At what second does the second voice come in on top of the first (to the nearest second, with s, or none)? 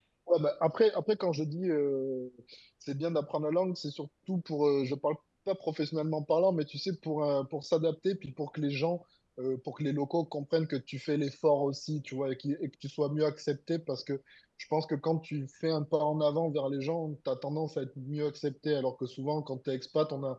none